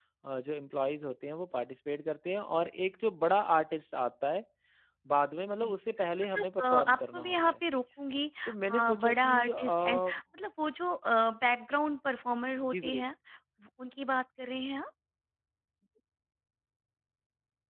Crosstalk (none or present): present